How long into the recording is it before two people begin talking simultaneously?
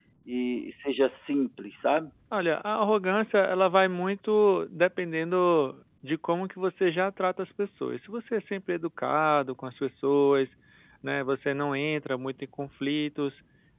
none

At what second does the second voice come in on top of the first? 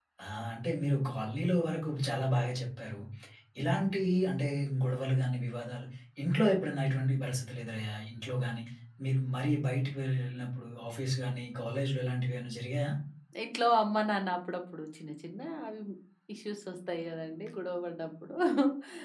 none

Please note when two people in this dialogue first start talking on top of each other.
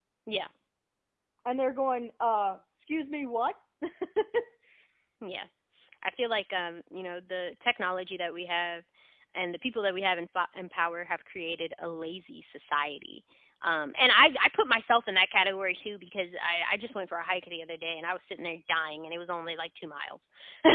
none

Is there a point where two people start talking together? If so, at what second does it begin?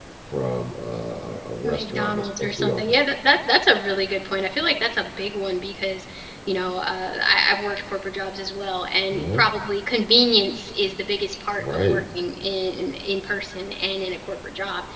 1.6 s

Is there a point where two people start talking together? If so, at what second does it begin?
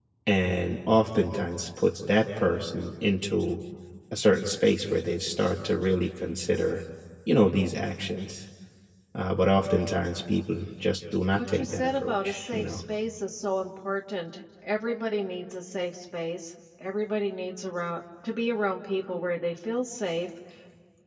11.5 s

